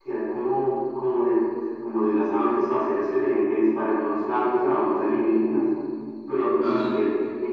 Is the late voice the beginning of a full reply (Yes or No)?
No